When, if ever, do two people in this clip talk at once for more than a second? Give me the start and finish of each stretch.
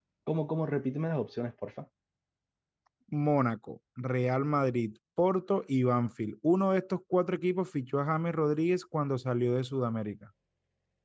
none

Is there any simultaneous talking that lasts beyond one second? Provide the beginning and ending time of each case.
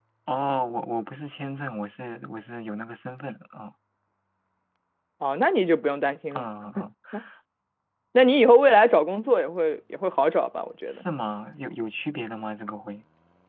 none

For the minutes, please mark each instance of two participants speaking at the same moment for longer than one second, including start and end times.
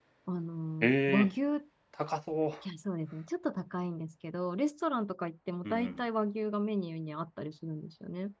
none

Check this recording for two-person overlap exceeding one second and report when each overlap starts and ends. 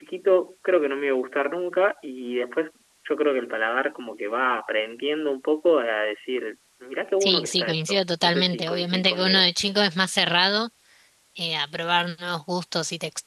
7.2-9.4

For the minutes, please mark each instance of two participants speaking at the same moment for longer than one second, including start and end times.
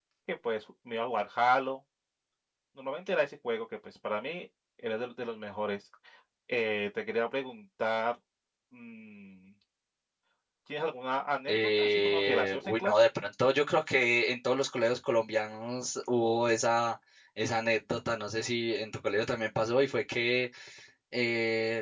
11.5-13.0

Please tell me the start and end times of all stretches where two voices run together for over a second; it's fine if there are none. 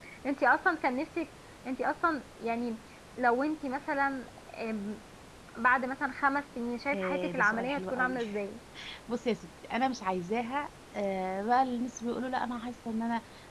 6.9-8.2

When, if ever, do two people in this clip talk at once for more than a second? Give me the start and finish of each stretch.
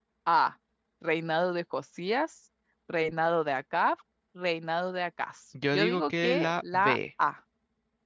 5.7-7.0

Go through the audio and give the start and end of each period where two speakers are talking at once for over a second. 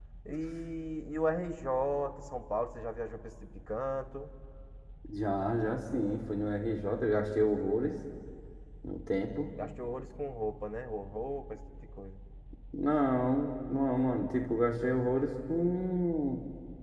none

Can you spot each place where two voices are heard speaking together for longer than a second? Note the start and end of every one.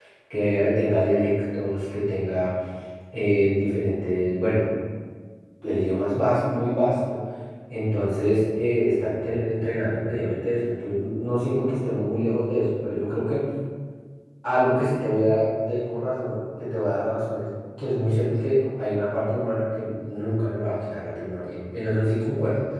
none

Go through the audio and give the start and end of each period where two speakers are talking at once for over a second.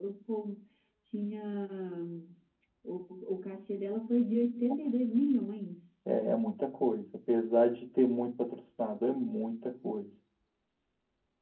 none

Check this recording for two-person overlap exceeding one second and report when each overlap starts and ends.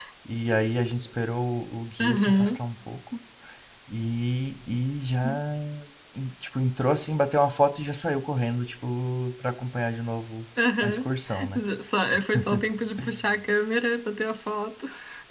none

